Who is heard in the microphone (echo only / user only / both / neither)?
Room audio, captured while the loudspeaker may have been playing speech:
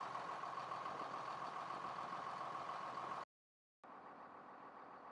neither